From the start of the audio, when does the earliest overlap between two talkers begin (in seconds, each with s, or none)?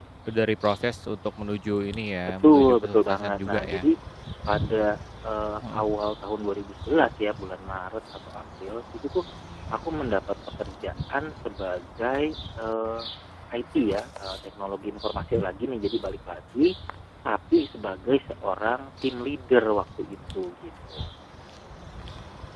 2.4 s